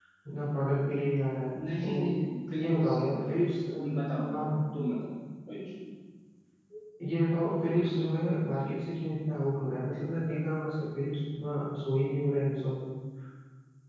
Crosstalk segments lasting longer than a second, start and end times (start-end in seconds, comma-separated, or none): none